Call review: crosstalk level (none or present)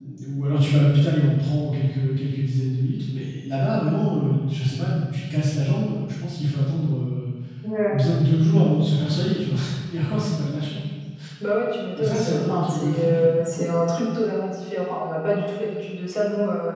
present